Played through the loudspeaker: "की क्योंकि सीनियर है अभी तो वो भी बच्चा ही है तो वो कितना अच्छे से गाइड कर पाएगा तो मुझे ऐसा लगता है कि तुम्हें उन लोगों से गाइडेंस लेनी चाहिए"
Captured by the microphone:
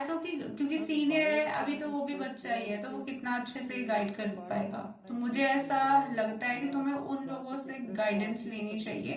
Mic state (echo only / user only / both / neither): both